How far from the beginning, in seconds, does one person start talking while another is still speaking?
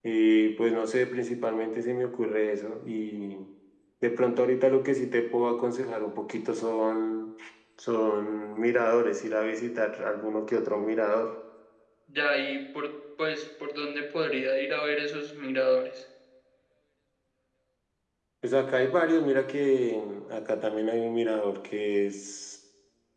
none

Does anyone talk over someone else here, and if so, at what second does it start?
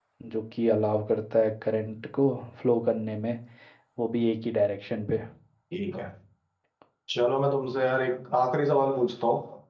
none

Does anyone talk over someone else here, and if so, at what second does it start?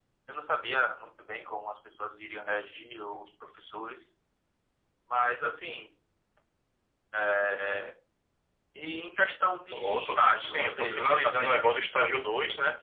10 s

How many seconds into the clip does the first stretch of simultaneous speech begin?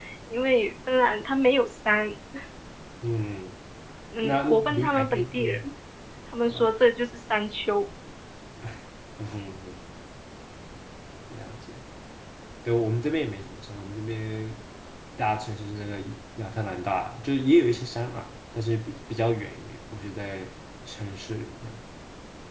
4 s

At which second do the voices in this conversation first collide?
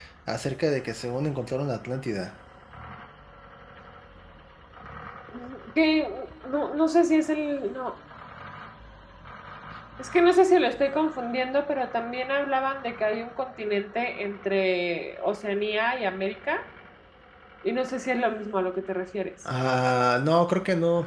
none

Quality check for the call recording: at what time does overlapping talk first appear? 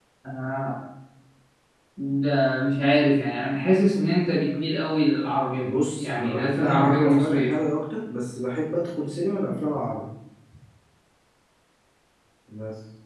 6 s

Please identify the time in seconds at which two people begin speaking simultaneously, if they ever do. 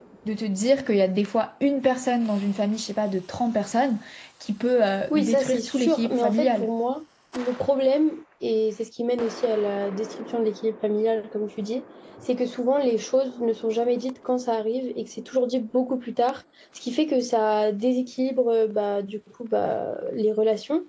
5 s

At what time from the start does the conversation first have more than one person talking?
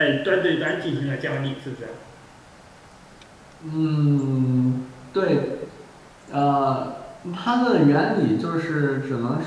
none

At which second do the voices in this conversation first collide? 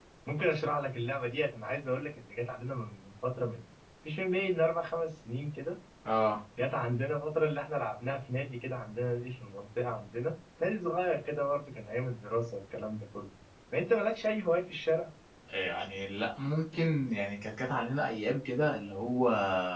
none

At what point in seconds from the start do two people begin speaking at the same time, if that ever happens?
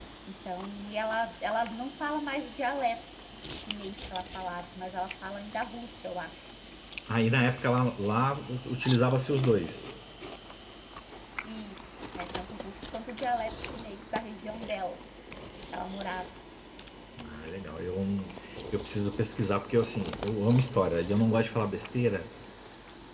none

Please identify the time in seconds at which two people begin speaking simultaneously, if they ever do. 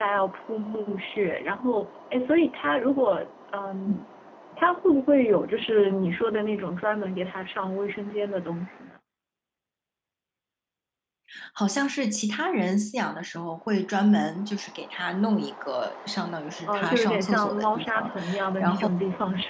17 s

